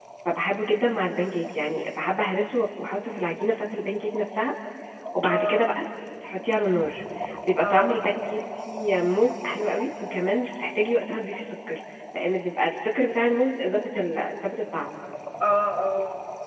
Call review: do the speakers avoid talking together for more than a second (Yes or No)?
Yes